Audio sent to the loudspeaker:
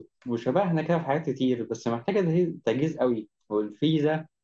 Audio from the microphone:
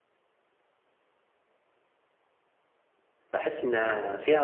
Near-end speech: present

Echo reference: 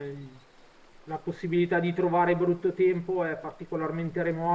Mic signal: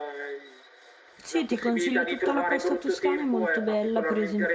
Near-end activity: present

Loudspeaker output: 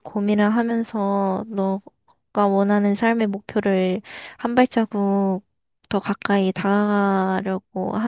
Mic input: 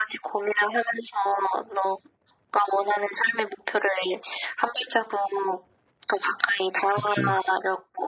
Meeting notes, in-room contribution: present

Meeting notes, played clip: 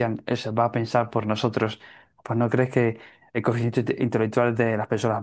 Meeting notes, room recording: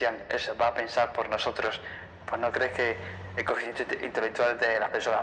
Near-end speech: none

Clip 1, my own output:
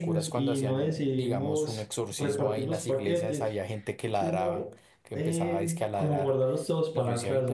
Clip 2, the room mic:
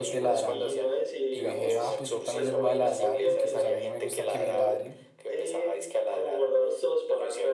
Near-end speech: present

